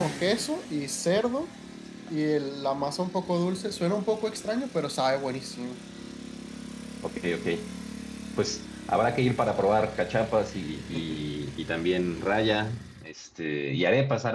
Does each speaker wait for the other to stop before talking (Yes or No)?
Yes